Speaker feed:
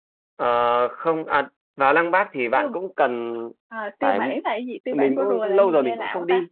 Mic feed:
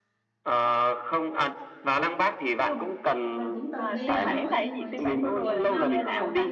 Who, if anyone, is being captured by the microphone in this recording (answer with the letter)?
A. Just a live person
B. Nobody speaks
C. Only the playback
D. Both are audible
D